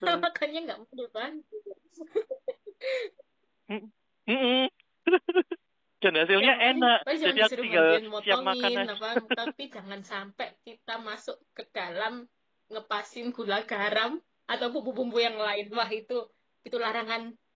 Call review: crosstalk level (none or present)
present